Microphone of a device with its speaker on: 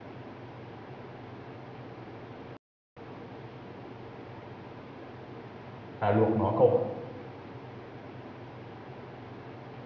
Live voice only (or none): là luộc nó cậu ạ.